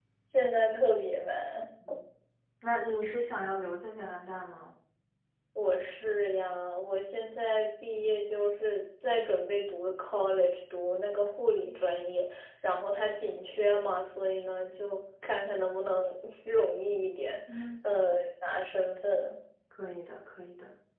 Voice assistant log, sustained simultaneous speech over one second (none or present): none